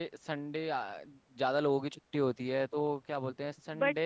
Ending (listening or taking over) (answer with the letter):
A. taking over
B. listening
A